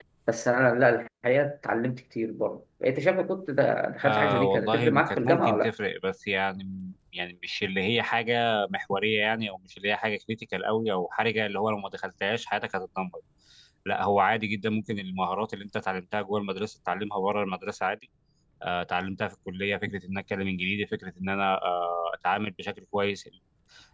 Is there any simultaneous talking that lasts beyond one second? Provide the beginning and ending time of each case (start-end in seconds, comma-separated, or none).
4.0-5.7